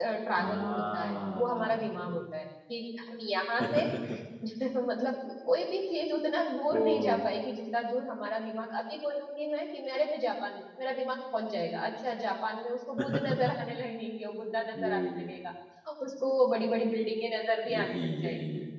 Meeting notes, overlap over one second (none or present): present